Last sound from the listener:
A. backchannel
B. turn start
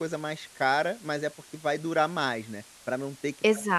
A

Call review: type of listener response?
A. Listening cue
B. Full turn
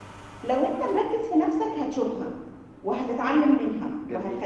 A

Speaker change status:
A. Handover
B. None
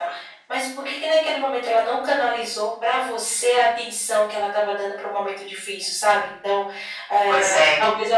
B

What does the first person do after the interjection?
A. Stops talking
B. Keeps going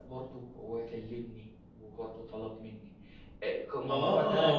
A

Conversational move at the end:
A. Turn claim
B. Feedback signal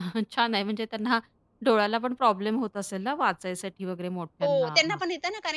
A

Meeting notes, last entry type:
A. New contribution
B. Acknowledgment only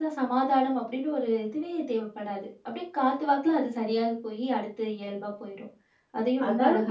A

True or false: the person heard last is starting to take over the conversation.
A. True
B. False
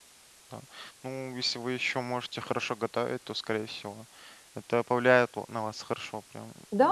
A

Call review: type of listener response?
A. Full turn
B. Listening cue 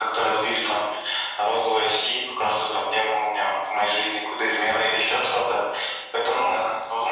B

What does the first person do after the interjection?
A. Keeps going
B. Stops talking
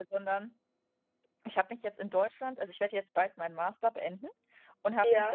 A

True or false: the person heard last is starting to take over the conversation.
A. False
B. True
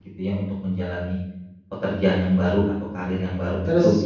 B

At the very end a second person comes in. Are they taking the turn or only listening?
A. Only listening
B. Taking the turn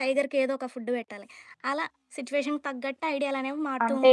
B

